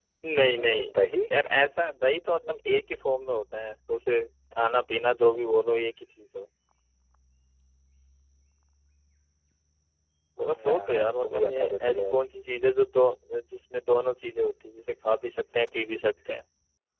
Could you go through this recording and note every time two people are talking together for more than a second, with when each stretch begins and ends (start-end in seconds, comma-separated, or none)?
10.7-12.0